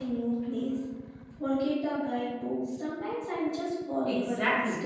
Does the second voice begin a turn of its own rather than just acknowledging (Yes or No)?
Yes